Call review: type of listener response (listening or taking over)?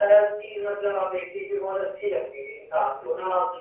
listening